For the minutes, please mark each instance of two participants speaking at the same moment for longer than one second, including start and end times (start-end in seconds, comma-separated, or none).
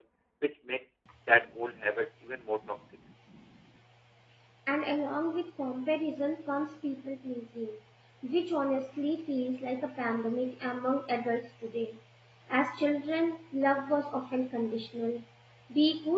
none